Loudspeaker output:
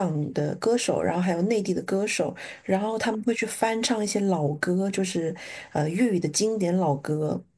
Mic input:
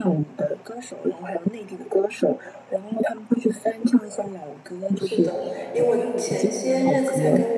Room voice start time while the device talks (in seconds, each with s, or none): 5.0 s